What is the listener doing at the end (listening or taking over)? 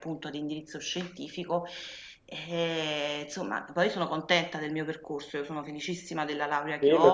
taking over